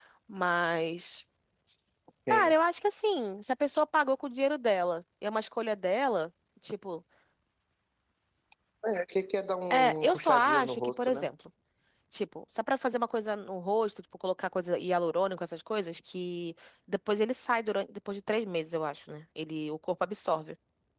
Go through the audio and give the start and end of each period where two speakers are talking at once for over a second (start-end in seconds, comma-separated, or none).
9.7-11.2